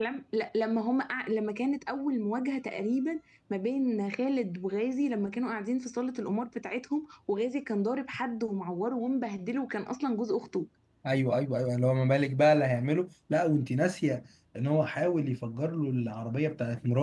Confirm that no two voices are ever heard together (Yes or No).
Yes